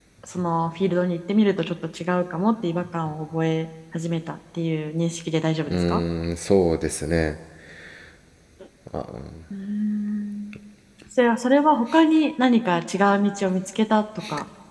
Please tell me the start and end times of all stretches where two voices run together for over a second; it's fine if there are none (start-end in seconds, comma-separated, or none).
none